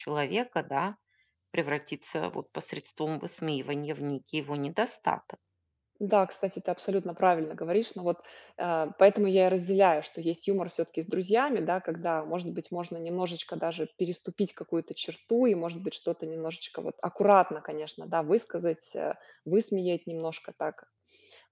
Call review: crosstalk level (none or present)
none